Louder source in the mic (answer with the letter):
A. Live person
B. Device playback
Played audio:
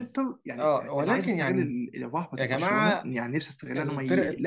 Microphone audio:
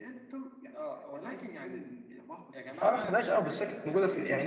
A